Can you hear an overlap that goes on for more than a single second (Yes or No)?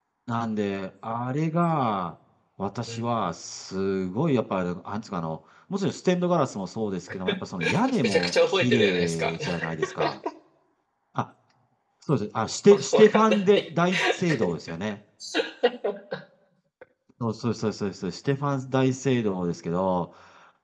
Yes